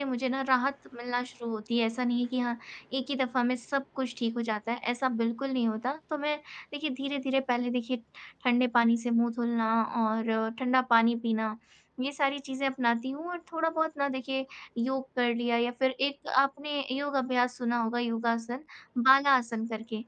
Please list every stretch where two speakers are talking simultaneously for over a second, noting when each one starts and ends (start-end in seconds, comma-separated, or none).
none